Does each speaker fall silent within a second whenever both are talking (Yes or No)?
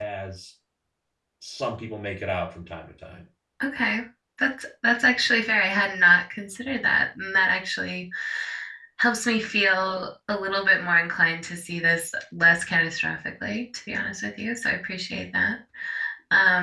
Yes